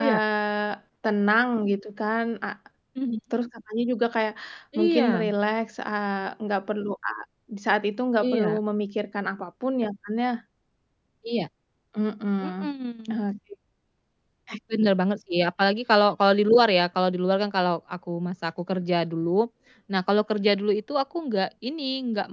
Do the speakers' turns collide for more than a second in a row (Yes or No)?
No